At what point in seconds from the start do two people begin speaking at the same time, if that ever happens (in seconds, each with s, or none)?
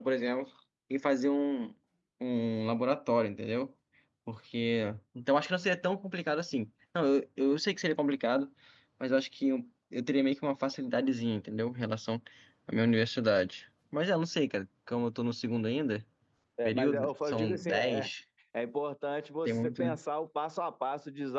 16.6 s